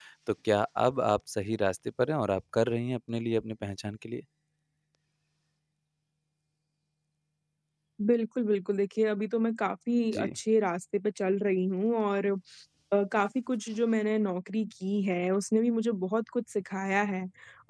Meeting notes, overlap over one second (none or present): none